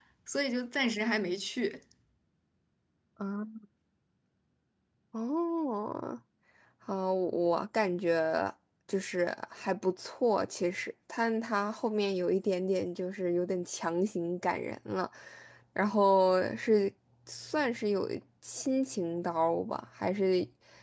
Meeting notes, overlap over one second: none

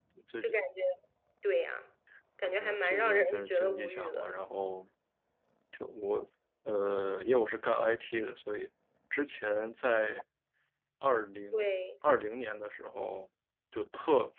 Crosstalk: present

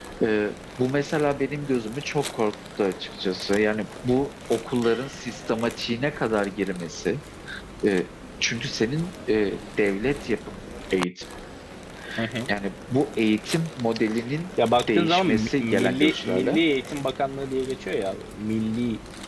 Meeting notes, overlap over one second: present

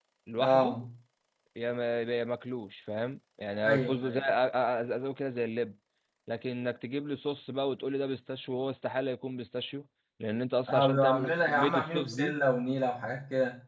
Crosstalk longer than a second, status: present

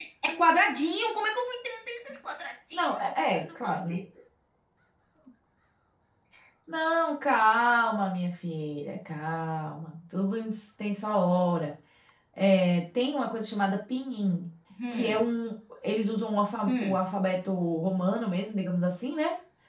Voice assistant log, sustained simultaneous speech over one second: present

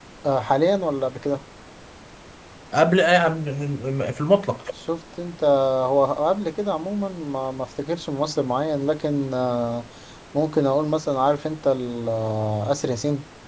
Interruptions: none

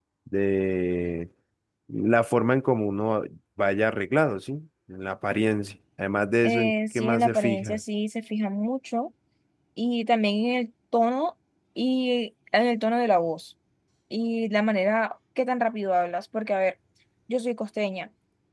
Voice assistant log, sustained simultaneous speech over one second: present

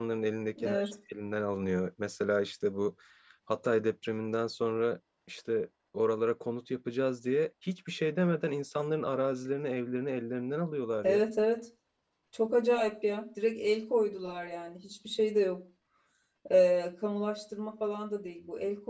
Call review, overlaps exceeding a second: none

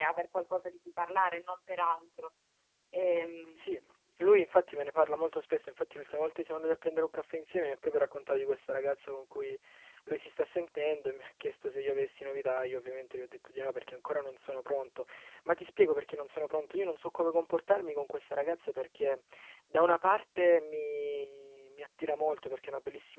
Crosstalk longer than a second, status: none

